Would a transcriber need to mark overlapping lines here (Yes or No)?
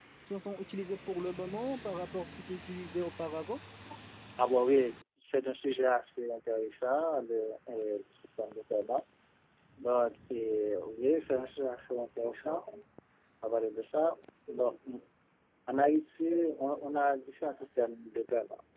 No